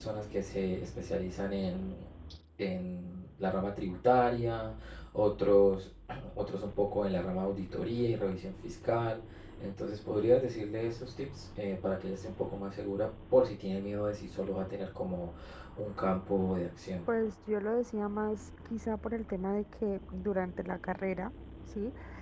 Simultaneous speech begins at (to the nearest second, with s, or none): none